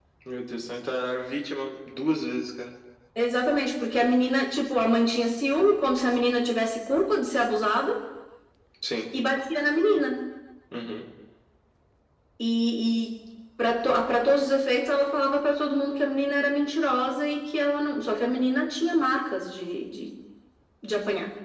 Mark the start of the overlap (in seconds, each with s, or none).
none